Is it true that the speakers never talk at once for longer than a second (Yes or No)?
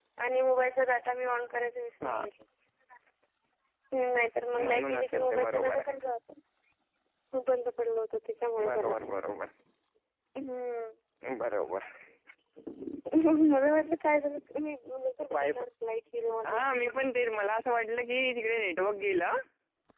No